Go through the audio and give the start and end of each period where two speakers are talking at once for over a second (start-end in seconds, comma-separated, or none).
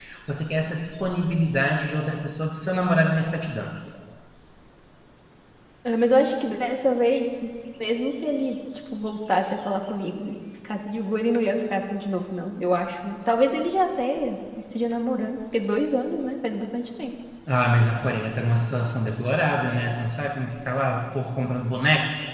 none